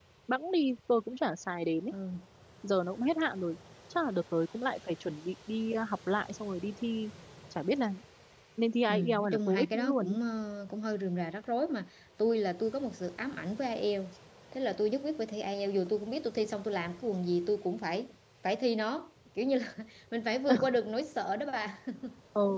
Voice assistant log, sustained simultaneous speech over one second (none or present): present